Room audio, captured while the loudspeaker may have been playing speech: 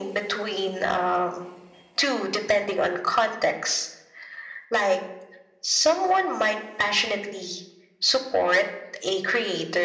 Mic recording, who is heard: echo only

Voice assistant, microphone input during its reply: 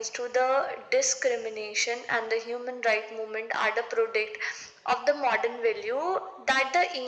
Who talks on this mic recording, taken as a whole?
echo only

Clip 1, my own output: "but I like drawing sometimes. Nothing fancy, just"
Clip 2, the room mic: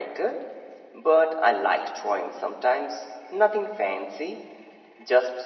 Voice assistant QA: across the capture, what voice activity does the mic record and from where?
echo only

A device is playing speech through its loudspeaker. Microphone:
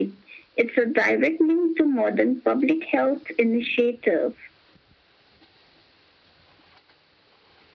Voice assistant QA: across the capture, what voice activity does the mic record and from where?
echo only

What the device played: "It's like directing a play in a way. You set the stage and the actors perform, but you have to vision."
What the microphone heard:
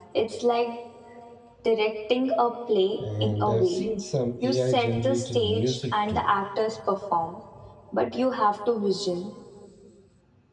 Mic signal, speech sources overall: both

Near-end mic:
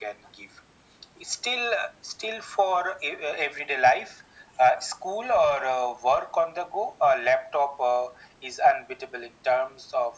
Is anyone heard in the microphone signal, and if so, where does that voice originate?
echo only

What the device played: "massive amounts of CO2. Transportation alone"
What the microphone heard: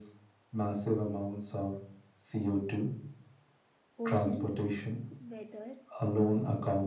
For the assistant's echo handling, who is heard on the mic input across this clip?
both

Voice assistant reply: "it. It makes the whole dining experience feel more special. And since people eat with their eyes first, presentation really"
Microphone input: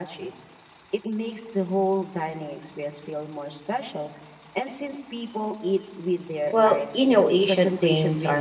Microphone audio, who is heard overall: both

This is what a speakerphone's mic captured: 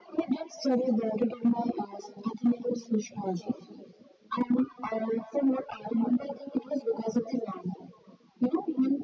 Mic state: echo only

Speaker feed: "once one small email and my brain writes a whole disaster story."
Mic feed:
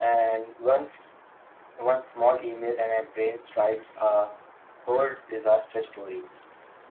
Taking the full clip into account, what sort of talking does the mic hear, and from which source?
echo only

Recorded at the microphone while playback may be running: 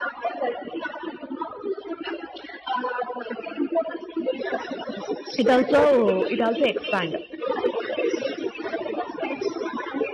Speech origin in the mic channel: both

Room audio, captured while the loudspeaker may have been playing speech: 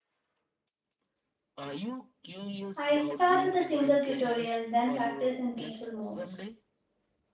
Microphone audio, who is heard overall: both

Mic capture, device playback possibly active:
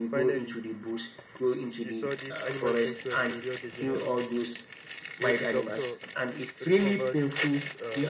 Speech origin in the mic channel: echo only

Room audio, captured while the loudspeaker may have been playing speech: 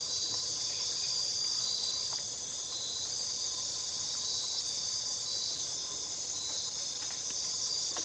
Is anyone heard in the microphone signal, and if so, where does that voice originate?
neither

